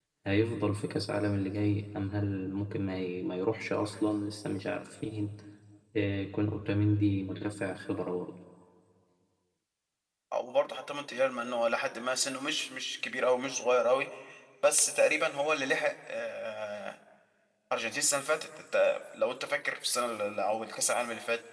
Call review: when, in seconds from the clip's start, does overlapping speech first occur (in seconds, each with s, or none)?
none